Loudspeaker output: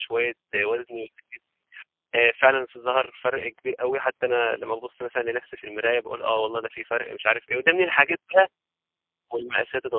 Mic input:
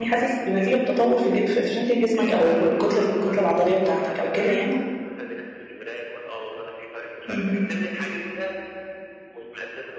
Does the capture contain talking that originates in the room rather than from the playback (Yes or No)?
Yes